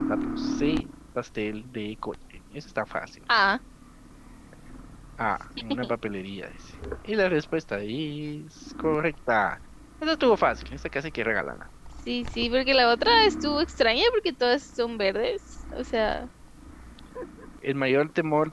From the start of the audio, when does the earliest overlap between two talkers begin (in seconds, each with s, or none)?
none